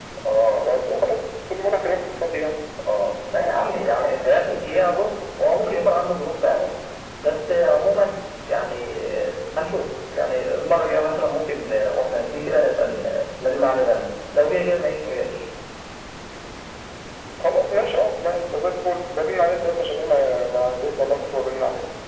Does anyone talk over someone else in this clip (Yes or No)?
No